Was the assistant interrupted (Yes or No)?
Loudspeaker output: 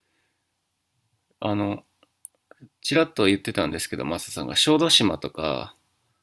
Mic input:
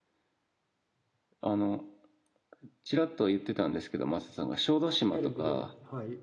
Yes